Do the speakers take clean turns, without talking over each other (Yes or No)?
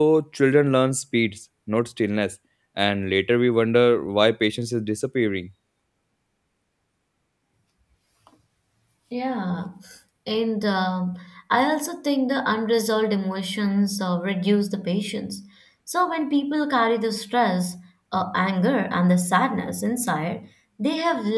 Yes